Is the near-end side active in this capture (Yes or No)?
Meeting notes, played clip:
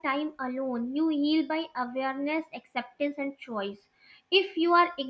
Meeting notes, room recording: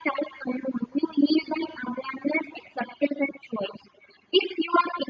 No